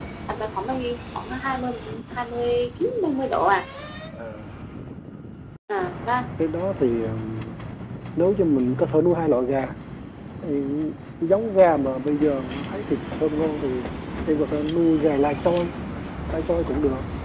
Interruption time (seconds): none

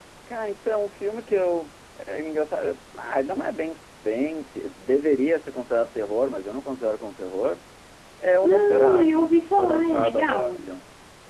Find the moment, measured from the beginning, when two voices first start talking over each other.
8.4 s

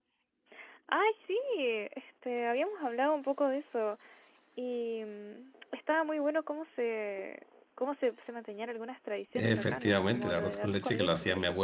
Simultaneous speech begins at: 9.3 s

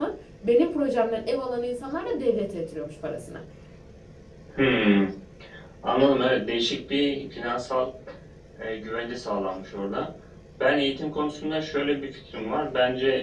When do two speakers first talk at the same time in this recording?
none

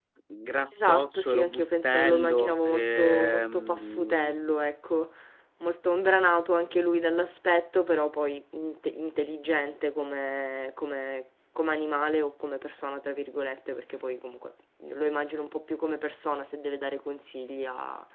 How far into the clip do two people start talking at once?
0.7 s

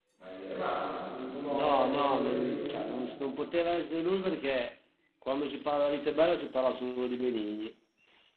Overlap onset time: 1.5 s

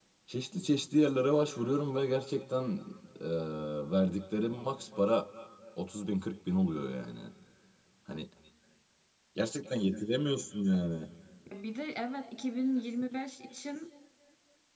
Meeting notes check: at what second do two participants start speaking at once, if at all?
none

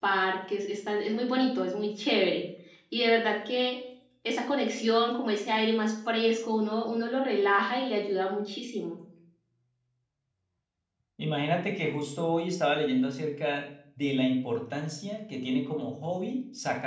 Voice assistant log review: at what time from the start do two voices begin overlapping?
none

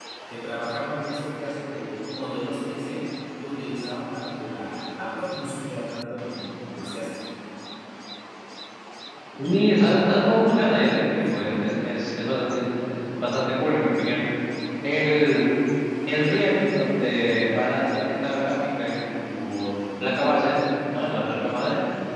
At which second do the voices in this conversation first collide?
none

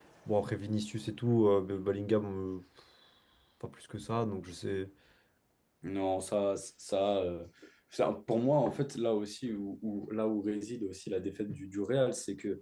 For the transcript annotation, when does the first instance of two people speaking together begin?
none

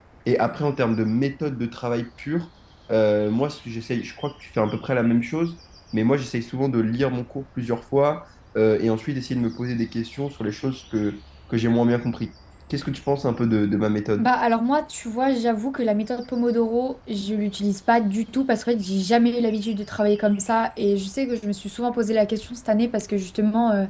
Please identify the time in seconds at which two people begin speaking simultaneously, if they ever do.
none

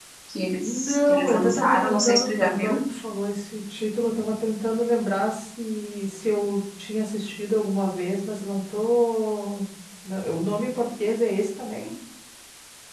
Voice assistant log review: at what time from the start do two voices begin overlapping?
0.6 s

